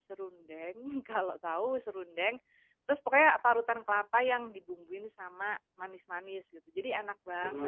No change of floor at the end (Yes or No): No